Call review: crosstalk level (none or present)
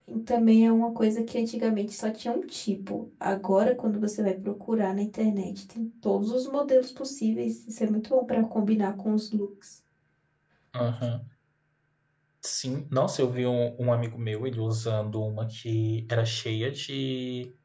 none